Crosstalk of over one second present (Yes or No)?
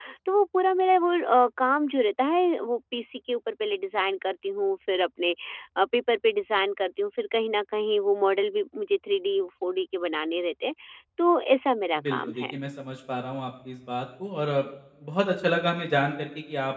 No